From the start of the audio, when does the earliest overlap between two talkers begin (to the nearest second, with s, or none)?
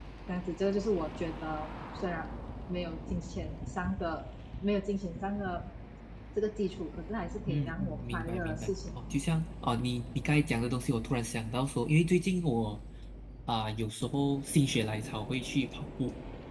7 s